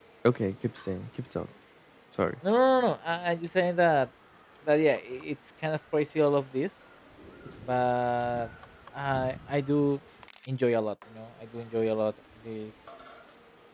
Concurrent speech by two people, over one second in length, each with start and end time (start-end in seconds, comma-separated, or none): none